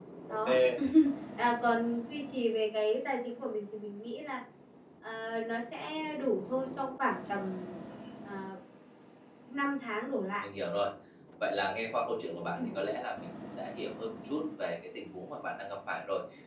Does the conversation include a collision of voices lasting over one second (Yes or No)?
No